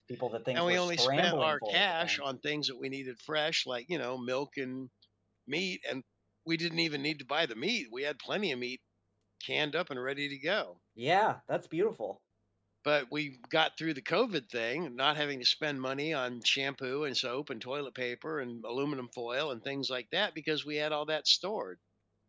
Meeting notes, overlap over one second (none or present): present